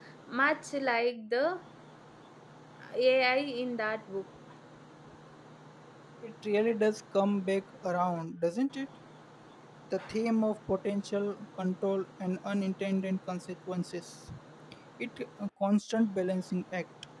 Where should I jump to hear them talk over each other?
none

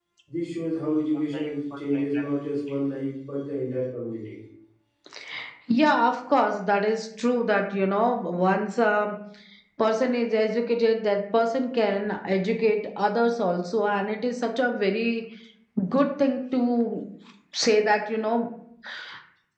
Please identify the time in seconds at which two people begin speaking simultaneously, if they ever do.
none

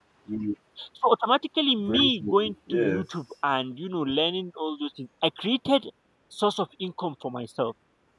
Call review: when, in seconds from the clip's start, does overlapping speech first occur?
1.8 s

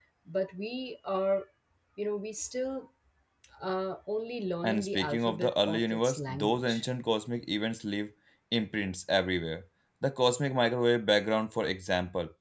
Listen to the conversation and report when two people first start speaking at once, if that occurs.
4.6 s

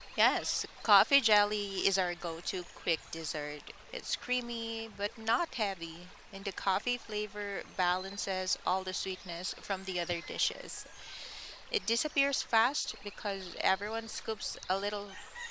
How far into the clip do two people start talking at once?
none

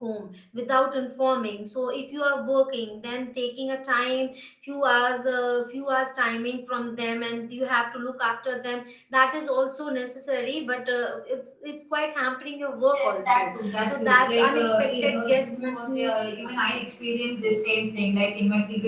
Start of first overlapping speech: 12.9 s

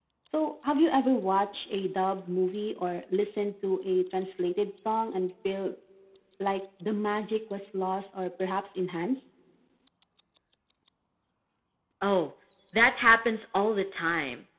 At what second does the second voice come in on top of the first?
none

